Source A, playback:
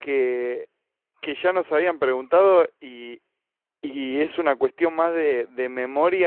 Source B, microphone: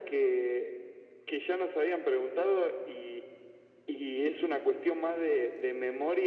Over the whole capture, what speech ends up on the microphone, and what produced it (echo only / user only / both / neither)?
echo only